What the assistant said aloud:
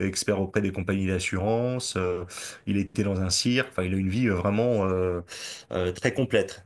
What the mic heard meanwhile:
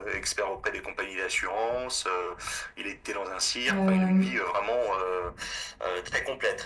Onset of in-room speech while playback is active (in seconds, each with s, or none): 3.7 s